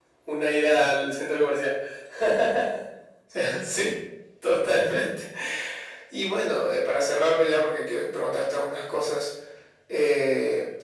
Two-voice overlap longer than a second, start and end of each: none

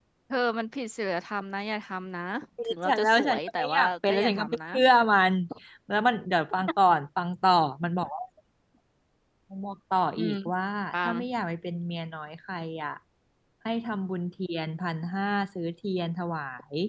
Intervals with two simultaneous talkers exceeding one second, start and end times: 2.6-4.6

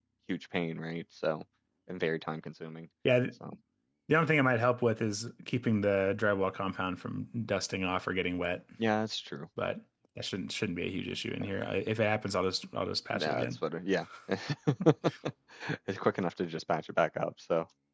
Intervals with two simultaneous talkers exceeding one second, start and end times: none

